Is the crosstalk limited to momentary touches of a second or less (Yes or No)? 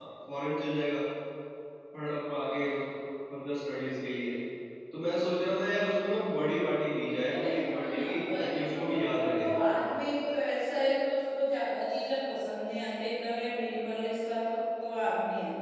No